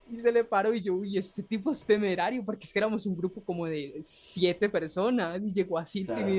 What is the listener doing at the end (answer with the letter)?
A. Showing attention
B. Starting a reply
A